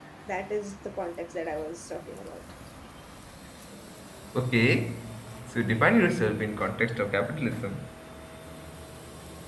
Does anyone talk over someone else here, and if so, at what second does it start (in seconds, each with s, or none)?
none